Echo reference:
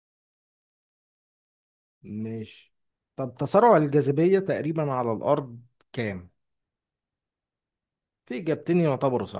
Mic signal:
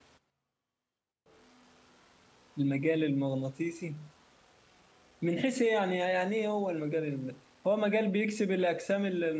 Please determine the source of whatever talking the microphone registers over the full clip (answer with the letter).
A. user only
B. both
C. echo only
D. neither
A